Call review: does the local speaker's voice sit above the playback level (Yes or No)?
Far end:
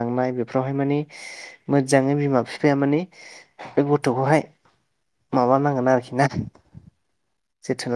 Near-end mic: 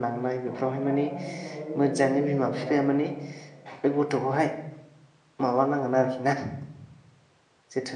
No